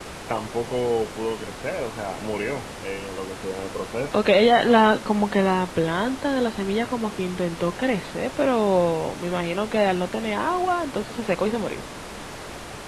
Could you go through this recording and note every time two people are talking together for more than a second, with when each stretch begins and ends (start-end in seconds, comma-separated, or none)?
none